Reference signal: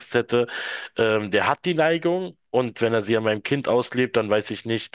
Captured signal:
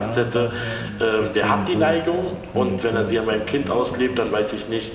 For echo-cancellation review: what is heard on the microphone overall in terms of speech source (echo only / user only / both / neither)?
both